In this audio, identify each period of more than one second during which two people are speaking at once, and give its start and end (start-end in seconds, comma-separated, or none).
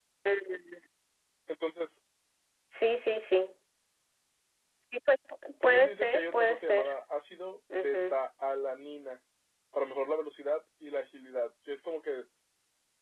5.6-6.9